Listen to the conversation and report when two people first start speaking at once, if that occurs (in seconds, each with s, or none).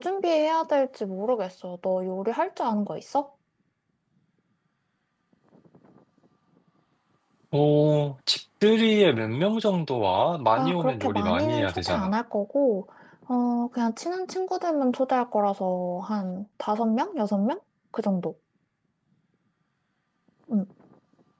10.5 s